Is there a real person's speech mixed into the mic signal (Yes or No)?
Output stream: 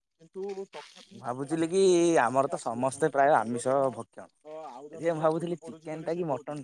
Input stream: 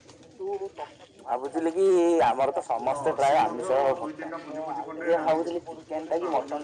Yes